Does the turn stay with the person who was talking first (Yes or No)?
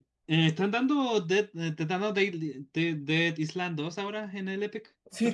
No